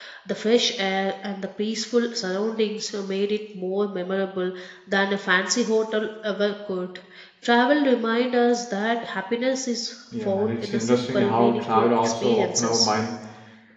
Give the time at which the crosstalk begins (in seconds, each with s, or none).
10.1 s